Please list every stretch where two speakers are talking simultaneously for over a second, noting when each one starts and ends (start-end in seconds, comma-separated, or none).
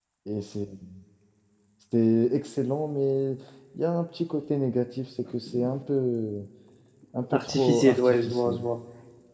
7.3-8.7